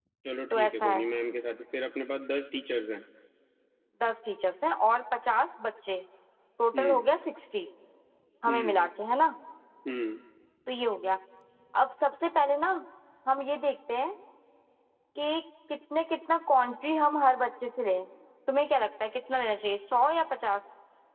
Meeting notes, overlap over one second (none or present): none